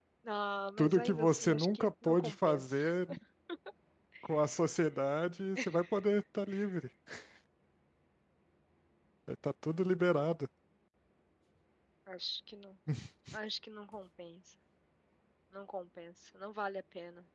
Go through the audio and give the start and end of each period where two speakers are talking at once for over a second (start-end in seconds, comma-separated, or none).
0.8-2.6